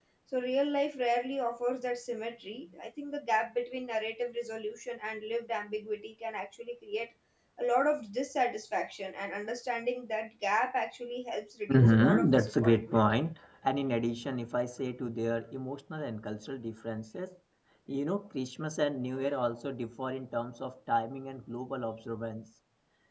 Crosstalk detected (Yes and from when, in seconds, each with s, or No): Yes, from 11.7 s